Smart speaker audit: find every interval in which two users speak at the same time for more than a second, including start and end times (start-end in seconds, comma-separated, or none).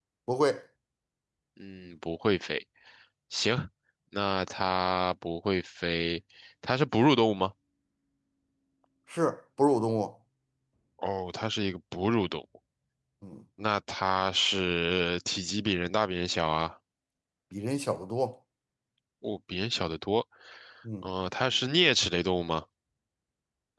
none